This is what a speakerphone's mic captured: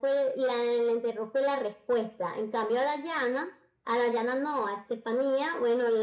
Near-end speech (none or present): none